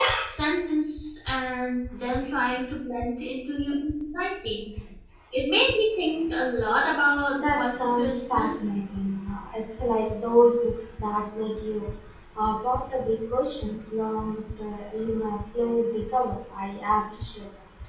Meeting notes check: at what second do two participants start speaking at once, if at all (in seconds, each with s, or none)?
7.3 s